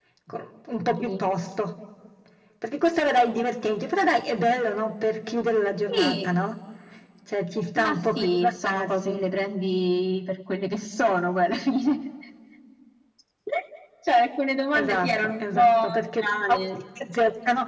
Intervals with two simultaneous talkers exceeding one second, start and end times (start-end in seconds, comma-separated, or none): 7.8-9.2, 14.7-16.6